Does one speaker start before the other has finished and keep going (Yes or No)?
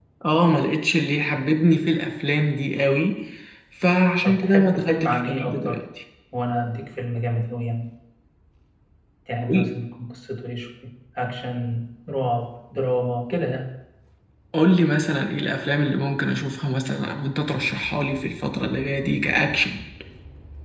Yes